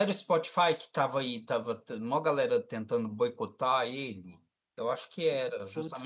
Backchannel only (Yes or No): No